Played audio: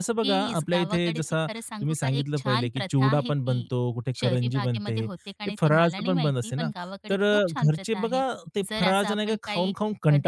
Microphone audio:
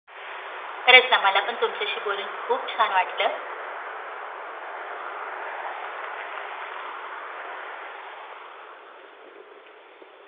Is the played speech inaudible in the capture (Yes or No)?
Yes